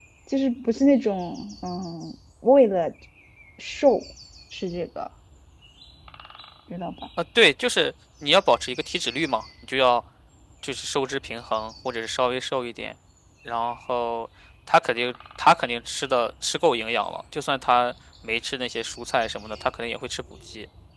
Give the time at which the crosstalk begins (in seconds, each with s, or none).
none